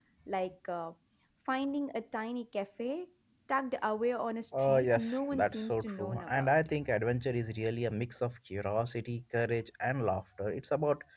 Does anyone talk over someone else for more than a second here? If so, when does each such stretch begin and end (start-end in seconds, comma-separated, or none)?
4.6-6.5